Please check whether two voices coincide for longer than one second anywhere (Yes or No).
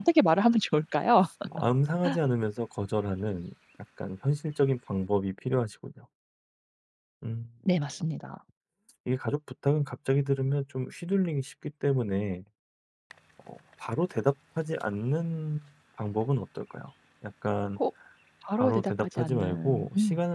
Yes